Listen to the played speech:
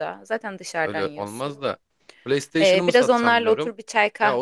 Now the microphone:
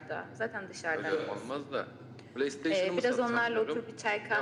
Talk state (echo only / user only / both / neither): both